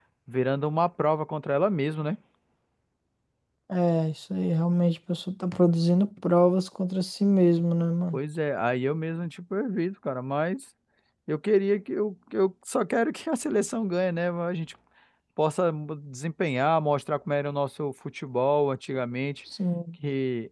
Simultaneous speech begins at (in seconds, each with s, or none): none